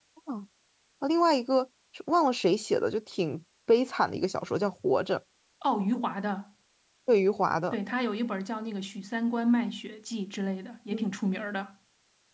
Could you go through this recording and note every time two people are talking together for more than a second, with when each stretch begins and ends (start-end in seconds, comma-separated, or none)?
none